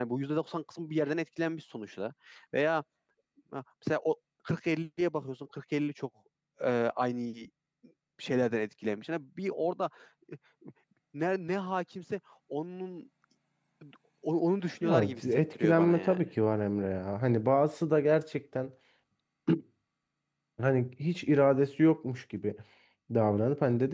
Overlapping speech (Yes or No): Yes